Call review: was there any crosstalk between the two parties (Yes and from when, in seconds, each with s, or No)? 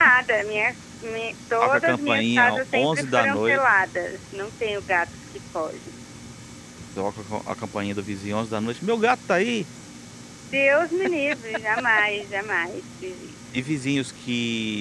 Yes, from 1.6 s